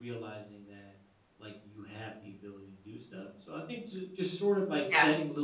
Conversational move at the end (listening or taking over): listening